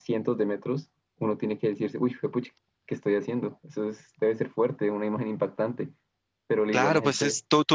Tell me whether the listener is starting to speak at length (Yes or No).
Yes